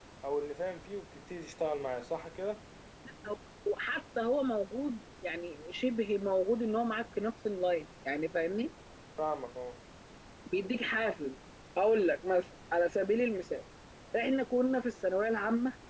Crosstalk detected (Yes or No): No